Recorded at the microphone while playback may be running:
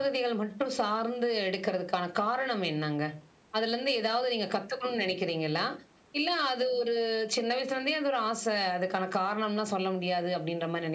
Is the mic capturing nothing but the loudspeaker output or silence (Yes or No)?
Yes